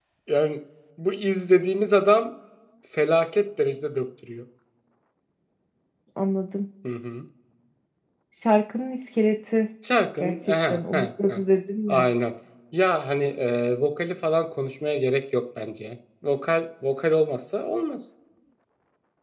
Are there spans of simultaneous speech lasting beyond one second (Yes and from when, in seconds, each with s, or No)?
Yes, from 10.2 s